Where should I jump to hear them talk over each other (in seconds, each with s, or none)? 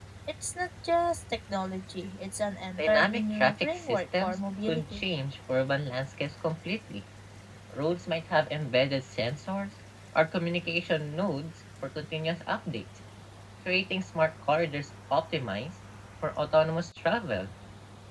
2.8 s